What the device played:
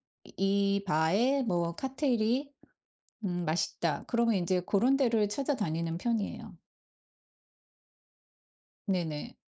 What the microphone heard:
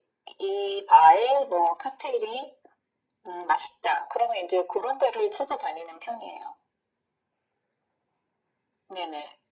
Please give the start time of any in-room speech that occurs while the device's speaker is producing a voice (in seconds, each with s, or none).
none